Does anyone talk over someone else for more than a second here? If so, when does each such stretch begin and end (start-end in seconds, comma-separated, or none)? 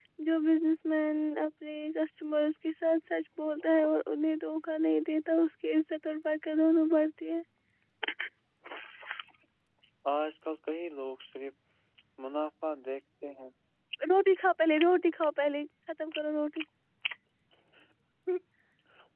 none